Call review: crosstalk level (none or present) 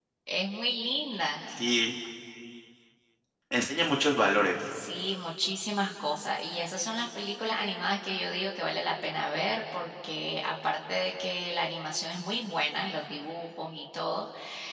none